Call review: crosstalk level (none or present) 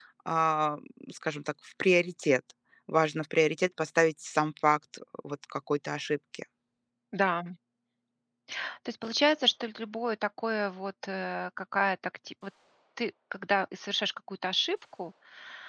none